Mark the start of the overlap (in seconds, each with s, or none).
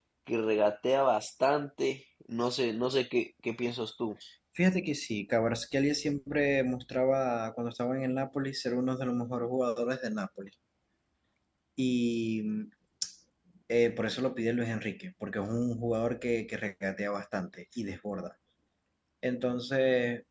none